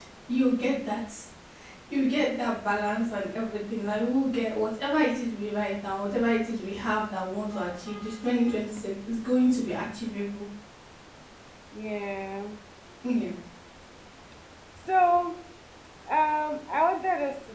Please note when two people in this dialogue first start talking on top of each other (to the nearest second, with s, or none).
none